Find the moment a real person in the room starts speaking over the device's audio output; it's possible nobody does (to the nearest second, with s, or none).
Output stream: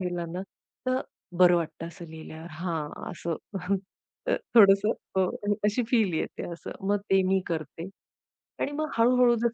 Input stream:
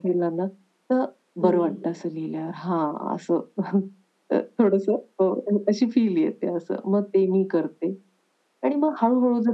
1 s